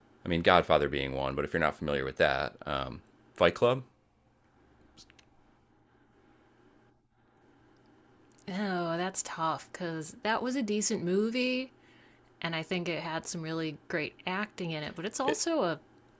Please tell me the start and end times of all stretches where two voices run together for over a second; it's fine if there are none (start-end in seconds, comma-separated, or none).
none